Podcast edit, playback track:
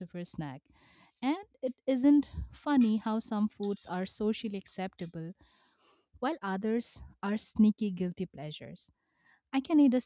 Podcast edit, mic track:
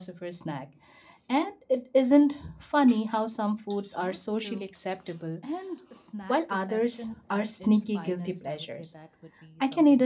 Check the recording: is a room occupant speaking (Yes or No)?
Yes